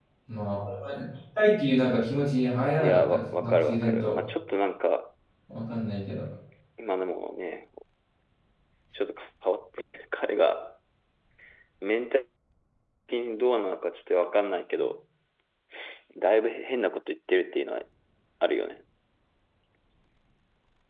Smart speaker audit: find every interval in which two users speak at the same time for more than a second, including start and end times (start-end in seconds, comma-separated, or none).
2.8-4.2